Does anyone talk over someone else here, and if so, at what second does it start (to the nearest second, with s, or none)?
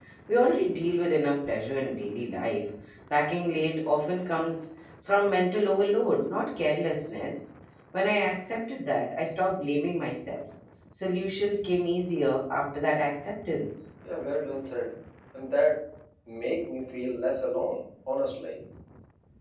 none